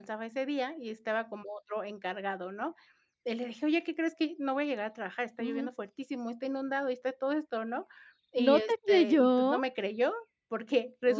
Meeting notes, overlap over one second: present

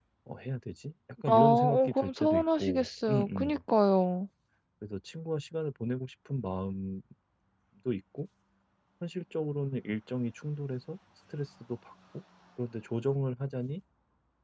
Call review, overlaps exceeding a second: present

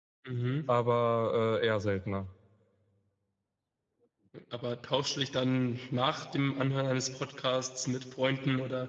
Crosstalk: none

